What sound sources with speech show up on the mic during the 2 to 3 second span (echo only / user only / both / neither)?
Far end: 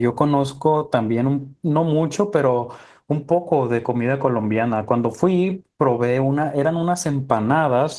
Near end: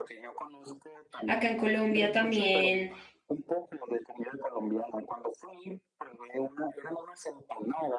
both